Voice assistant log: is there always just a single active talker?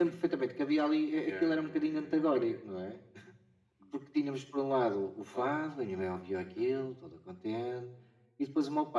No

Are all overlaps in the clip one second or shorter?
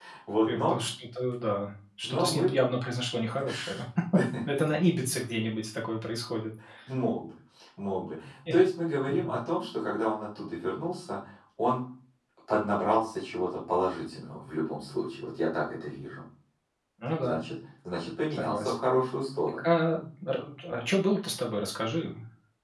Yes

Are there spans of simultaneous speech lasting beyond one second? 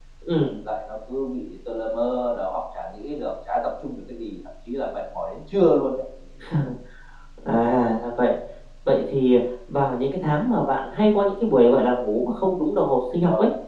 No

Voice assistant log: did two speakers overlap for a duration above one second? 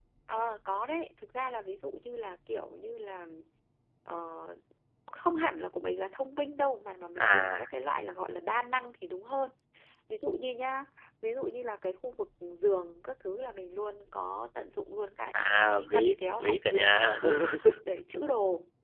Yes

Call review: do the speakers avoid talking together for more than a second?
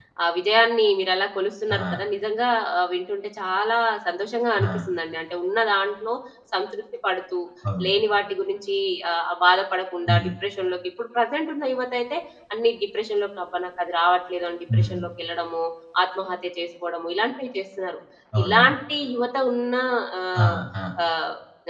Yes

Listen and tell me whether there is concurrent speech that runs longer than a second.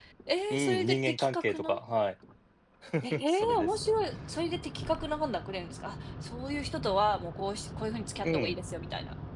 Yes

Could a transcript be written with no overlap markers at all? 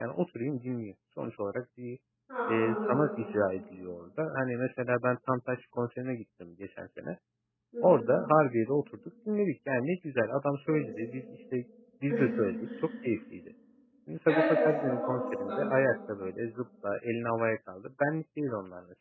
No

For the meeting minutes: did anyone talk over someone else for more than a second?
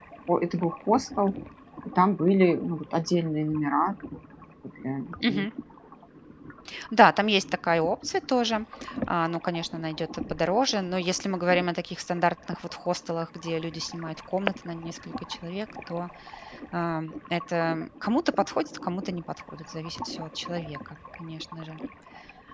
No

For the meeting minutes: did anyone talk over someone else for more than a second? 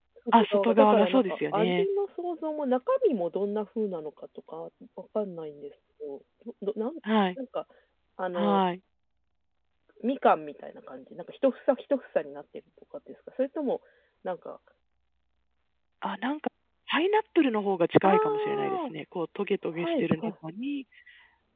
Yes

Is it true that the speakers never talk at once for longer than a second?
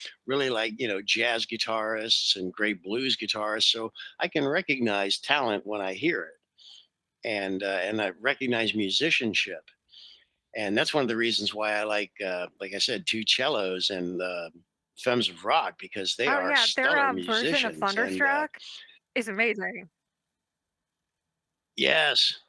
No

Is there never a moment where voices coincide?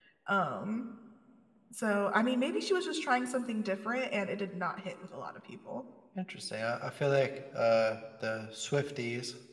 Yes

